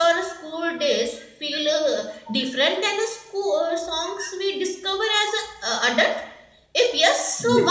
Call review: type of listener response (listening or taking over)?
taking over